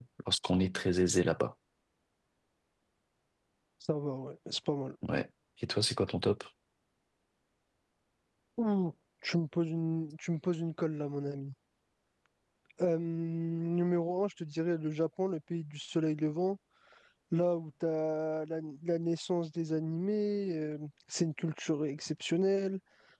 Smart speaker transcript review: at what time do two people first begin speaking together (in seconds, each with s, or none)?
none